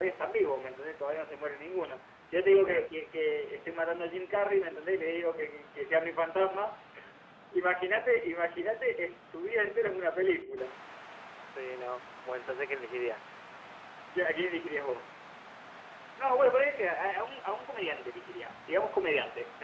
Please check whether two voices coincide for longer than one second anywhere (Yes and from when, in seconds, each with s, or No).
No